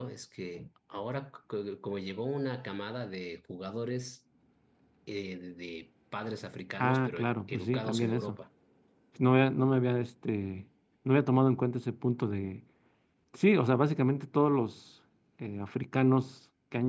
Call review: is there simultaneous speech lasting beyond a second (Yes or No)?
Yes